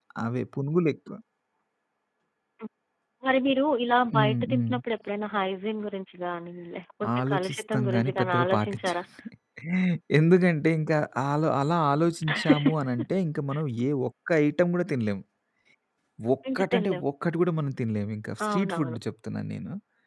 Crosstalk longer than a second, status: present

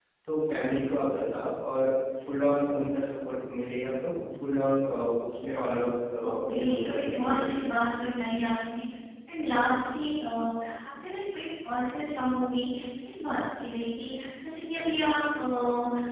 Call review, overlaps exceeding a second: present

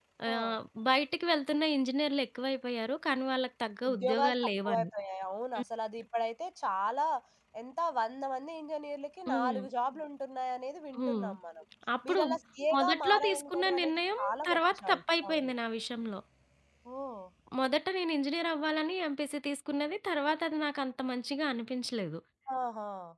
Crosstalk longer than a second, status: present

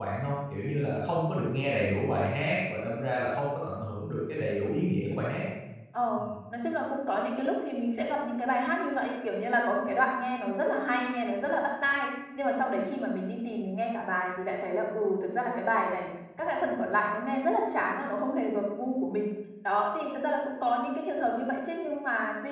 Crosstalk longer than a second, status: none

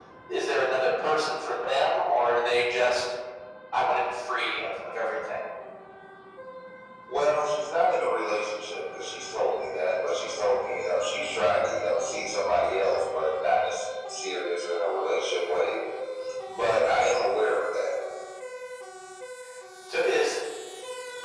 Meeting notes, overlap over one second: none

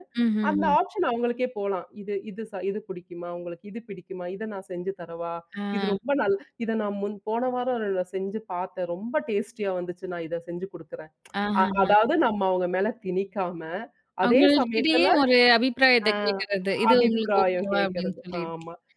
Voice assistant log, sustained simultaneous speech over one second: present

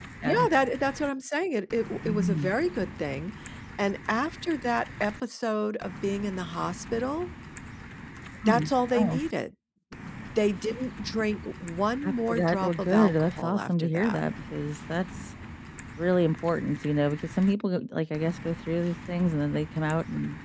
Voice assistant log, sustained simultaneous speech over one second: present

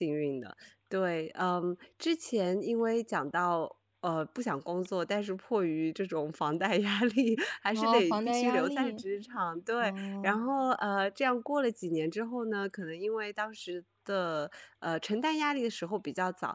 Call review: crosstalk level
present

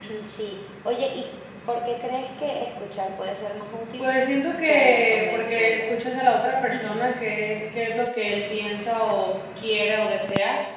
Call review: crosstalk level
present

